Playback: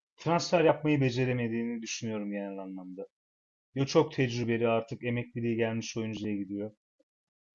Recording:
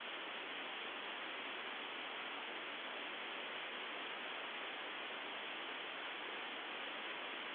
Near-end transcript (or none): none